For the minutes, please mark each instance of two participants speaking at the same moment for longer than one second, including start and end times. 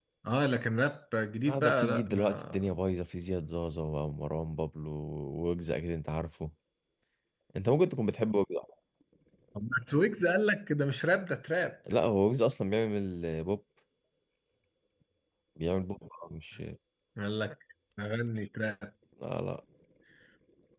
1.5-2.7

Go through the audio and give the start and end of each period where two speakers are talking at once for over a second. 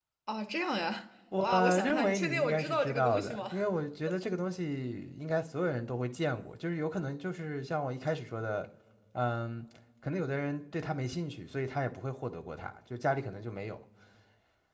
1.4-3.5

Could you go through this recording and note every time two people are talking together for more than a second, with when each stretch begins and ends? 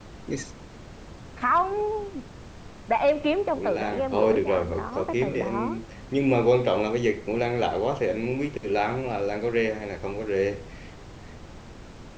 3.5-5.8

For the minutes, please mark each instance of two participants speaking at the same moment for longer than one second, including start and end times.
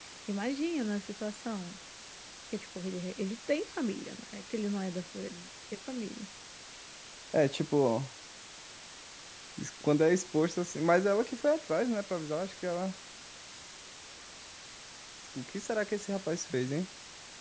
none

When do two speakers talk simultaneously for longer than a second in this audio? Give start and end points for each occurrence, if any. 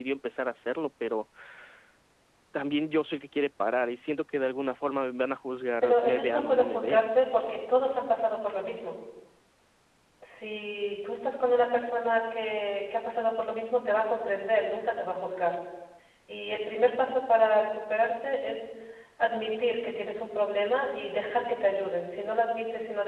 5.8-7.1

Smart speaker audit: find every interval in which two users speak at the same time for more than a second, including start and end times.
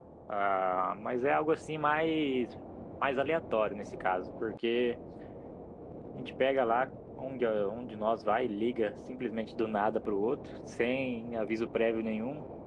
none

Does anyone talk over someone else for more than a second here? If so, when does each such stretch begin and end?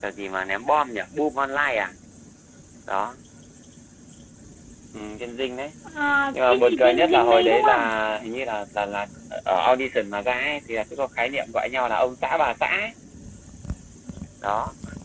6.3-7.9

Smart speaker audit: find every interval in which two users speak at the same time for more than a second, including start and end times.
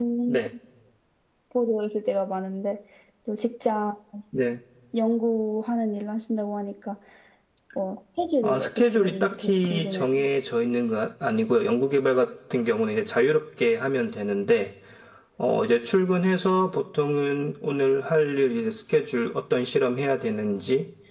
8.4-10.2

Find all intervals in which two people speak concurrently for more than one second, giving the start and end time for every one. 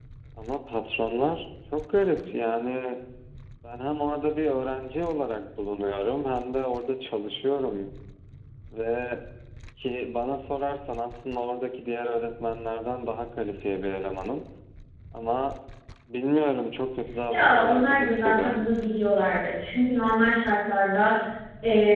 17.3-18.7

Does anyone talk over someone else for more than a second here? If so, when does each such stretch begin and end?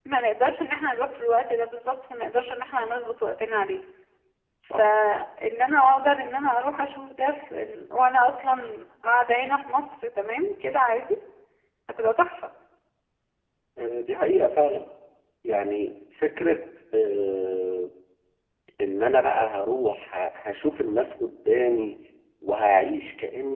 none

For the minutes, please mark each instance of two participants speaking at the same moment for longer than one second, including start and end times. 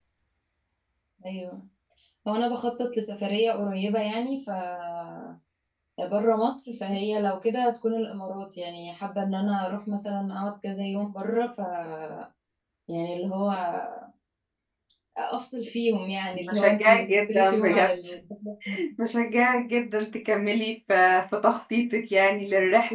16.5-17.9

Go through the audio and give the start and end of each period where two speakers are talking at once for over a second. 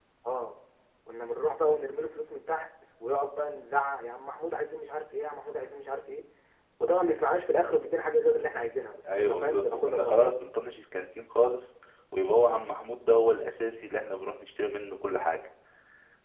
9.1-10.3

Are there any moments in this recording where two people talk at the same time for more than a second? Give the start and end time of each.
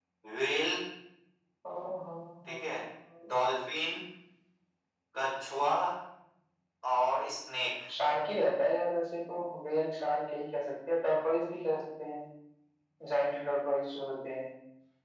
none

